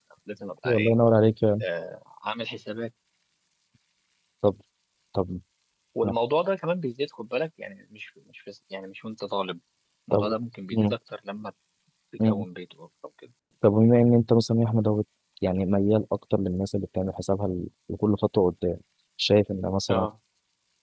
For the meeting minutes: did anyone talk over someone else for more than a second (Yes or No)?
No